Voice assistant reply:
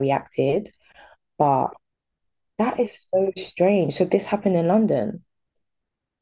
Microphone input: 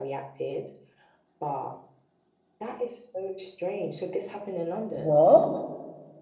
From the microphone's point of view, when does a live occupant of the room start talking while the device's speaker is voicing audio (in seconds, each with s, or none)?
4.9 s